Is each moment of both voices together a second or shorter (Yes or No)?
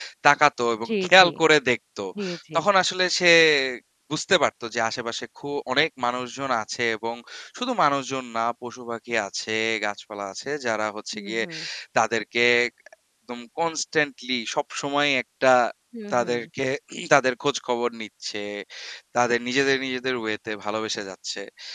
Yes